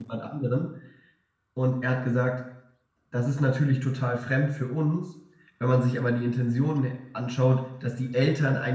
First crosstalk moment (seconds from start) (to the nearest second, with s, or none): none